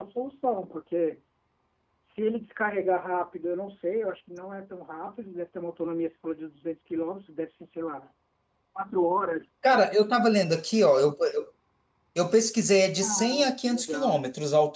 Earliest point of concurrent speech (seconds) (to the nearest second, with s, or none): 13 s